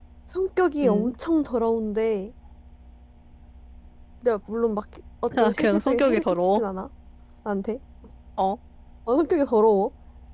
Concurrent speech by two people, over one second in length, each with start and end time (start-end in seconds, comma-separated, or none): 5.4-6.6